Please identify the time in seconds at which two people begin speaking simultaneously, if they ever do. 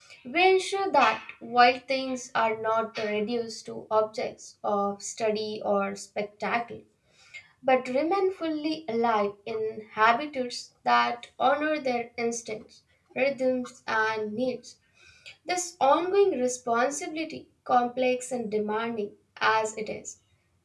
none

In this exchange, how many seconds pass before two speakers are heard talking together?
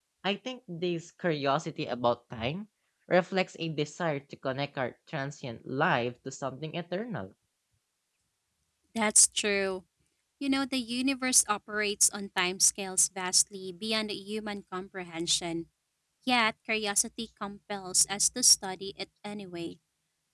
none

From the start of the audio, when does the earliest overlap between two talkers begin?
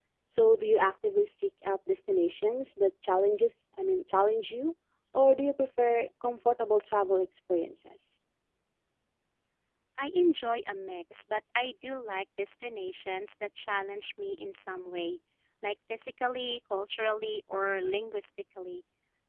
none

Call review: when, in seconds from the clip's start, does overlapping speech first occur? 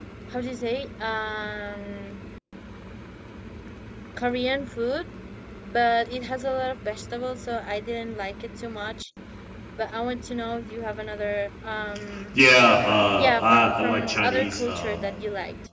13 s

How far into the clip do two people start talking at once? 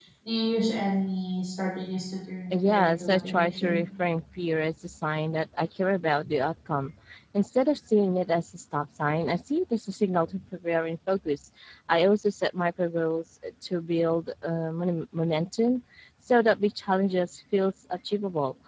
3 s

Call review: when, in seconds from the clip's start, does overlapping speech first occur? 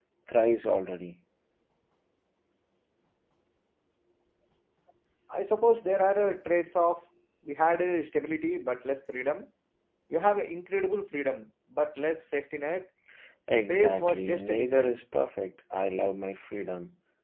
14 s

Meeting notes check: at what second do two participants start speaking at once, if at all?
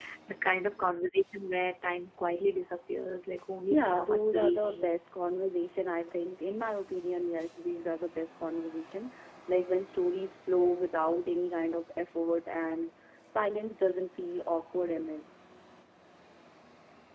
4 s

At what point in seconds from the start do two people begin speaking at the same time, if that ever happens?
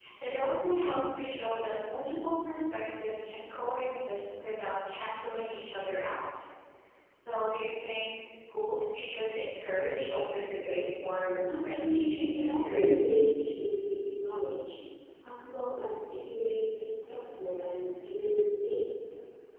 12 s

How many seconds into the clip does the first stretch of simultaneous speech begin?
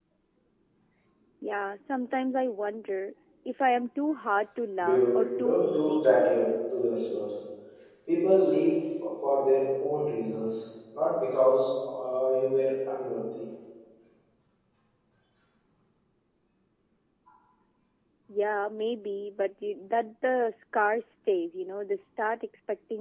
5 s

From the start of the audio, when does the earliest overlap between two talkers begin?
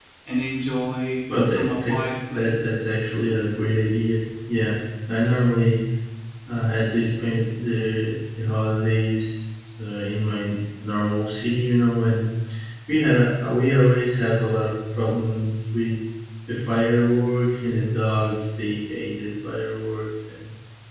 1 s

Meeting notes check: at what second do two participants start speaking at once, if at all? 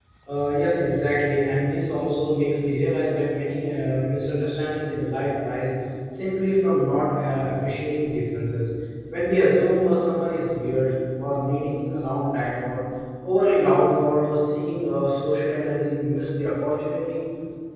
none

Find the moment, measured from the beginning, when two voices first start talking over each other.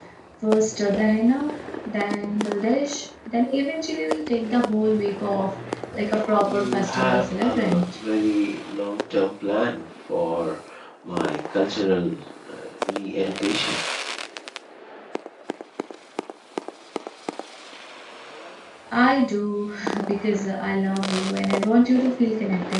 6 s

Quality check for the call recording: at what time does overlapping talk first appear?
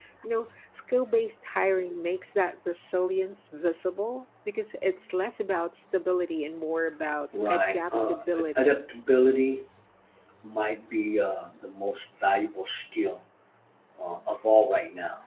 7 s

